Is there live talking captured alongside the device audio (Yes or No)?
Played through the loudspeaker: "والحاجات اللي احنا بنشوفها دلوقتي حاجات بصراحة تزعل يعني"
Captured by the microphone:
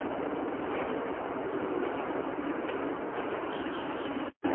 No